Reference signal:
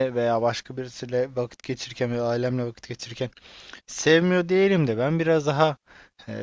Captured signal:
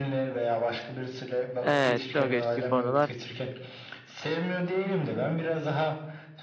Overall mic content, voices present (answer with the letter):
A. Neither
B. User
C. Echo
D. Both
D